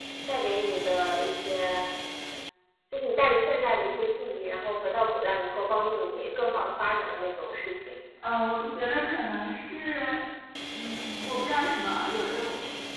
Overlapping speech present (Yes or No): No